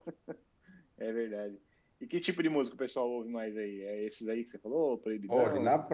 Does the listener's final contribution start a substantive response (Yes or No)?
Yes